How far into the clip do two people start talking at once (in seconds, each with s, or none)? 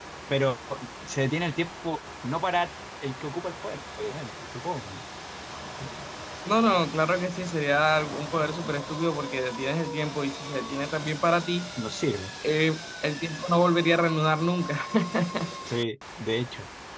none